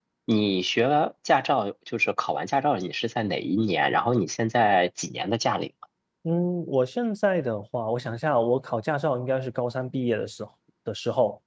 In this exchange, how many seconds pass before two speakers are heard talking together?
none

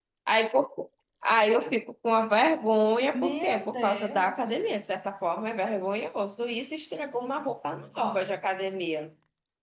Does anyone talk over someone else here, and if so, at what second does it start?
3.1 s

